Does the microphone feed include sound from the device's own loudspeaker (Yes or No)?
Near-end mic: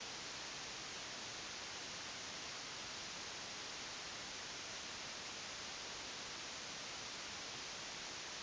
No